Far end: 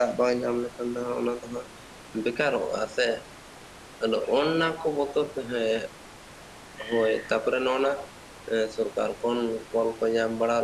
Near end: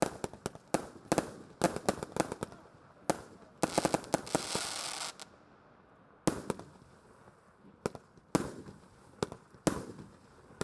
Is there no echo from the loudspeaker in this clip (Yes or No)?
Yes